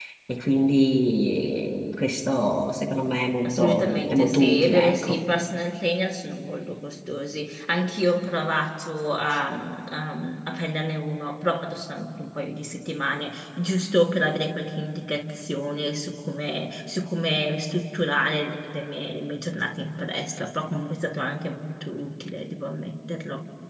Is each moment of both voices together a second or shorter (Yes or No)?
No